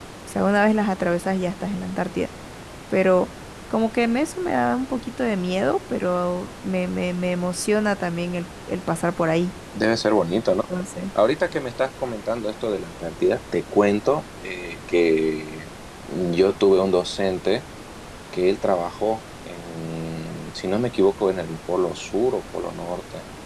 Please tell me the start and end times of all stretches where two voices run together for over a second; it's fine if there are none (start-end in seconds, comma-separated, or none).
none